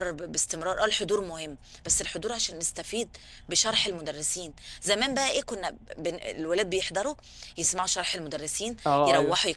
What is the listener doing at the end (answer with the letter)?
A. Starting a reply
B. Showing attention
B